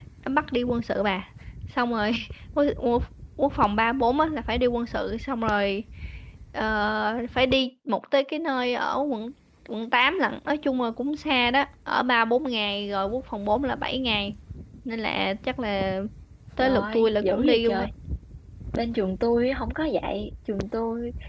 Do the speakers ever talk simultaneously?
Yes, from 16.6 s

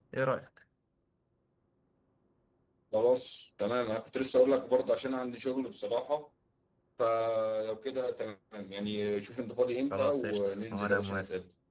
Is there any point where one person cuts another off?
Yes, from 9.9 s

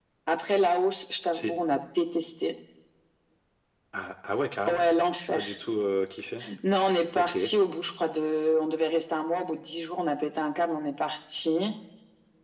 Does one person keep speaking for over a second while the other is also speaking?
No

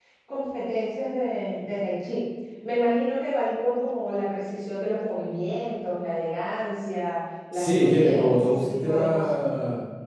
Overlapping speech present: Yes, from 7.5 s

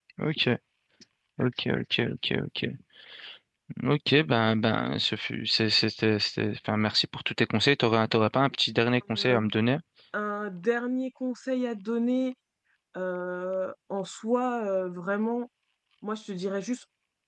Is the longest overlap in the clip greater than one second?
No

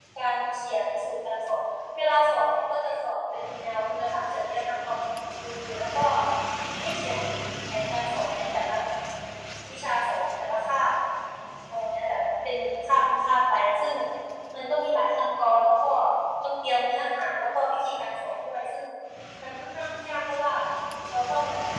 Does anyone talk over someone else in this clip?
No

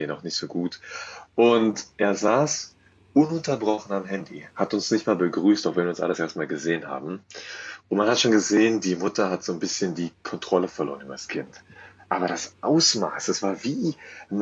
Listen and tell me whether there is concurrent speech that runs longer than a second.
No

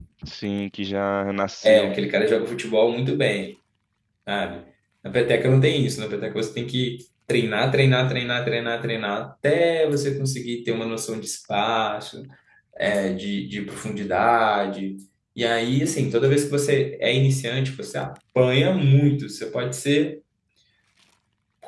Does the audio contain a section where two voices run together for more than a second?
No

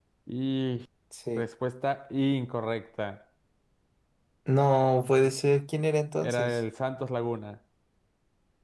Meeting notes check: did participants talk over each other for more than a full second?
No

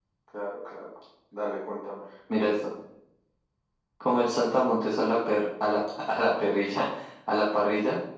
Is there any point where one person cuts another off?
No

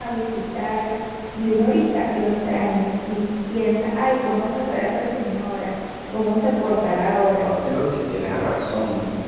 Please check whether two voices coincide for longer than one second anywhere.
No

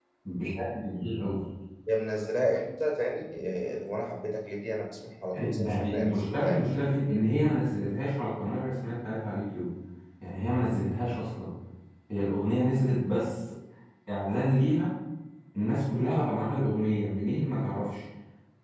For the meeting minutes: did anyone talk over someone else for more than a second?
Yes, from 5.3 s

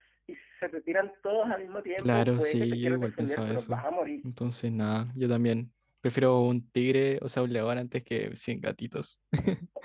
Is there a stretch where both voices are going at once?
Yes, from 2.0 s

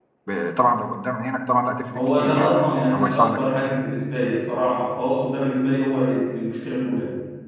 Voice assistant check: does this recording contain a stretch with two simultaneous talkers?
Yes, from 1.9 s

